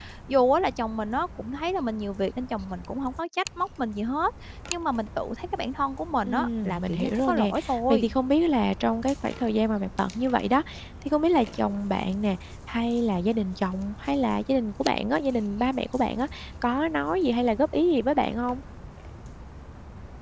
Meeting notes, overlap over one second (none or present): present